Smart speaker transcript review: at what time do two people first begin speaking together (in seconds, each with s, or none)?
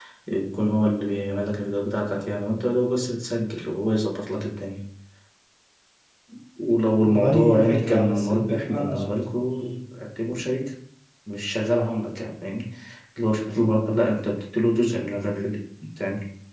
7.0 s